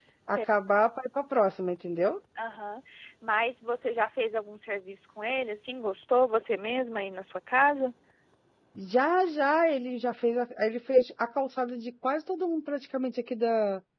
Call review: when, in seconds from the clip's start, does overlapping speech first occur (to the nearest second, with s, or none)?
none